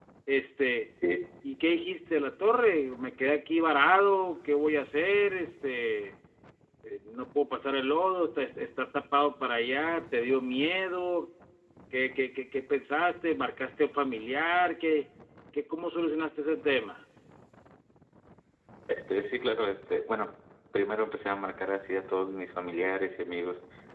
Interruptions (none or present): none